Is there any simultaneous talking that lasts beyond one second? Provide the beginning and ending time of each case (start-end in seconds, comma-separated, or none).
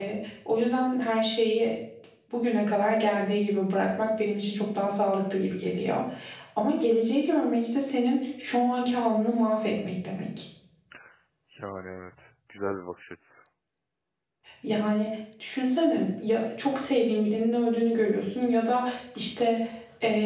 none